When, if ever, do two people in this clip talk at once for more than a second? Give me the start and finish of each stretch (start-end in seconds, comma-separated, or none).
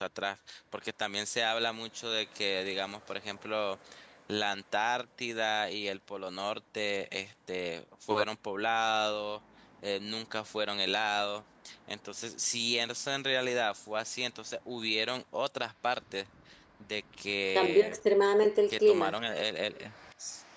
none